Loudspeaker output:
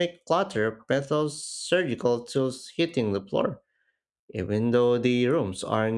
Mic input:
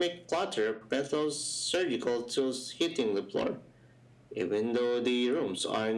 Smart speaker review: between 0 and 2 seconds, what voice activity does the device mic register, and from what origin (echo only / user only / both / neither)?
echo only